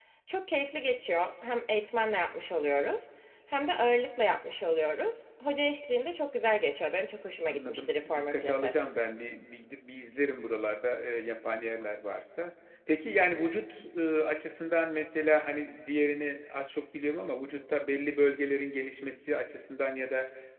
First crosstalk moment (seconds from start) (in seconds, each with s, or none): 7.5 s